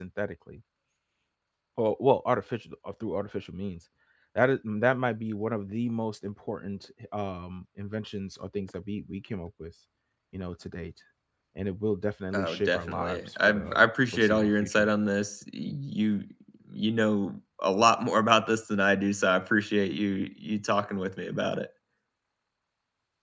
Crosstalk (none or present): present